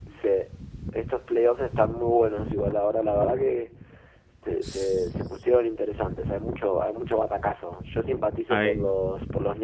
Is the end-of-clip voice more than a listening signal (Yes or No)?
No